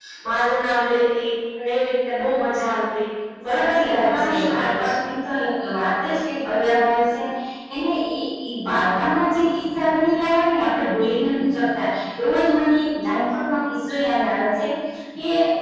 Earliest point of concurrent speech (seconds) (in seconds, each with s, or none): 3.5 s